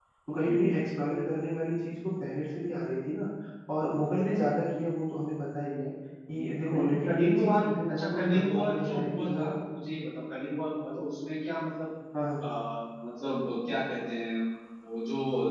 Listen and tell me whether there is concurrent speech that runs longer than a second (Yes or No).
Yes